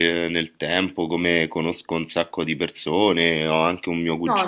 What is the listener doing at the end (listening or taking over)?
listening